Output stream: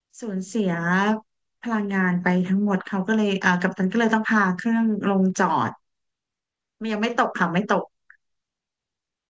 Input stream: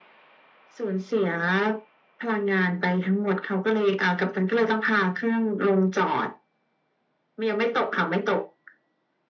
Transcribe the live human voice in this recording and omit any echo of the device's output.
none

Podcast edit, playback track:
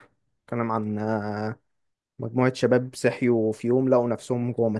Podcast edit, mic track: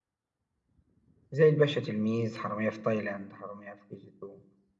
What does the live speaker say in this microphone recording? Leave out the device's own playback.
زي الباشا تلميذ حرامية في تايلاند حرامية في كي جي 2

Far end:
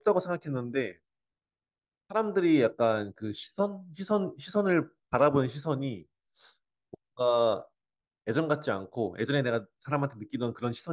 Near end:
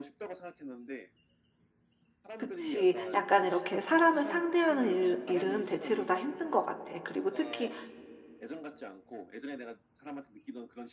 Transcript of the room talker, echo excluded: 그치. 약간 이렇게 사람을 상대하는 일, 일은 대체로 다 힘든 것 같아. 그리고 특히

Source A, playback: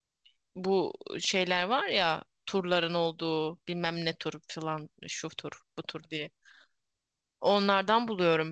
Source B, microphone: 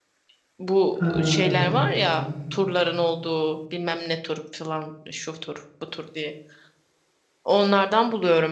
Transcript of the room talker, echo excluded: Ha, evet evet.

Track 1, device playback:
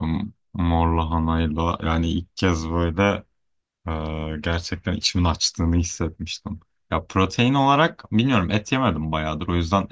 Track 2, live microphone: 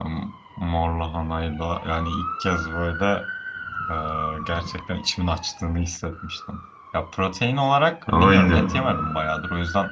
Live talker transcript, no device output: Ama bilmiyorum.

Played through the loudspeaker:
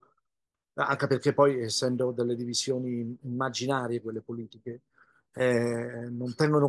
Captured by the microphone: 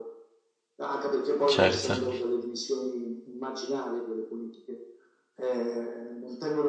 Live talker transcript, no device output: certo.

